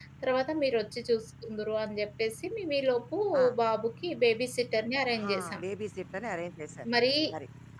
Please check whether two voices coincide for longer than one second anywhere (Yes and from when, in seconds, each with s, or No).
No